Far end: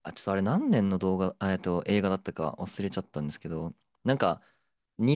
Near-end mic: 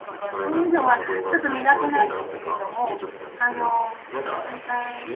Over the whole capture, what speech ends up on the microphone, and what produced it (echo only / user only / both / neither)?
both